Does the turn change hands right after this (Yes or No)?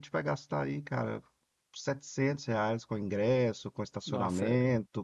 No